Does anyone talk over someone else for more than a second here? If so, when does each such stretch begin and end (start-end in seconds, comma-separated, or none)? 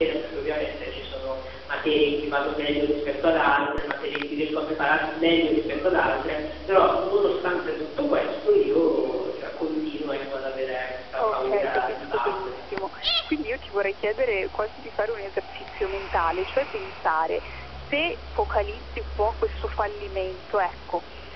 11.2-12.5